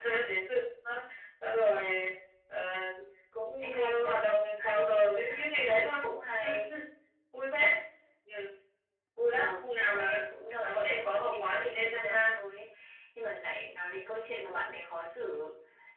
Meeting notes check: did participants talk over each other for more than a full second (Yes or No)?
Yes